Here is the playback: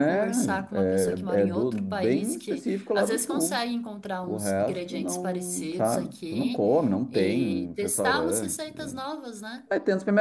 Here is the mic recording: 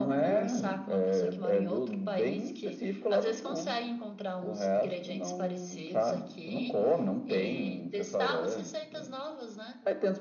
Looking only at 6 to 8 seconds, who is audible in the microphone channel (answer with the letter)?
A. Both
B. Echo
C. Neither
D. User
B